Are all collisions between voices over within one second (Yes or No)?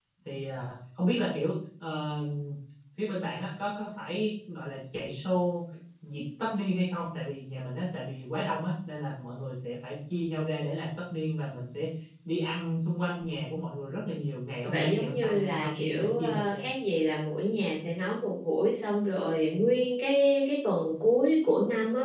No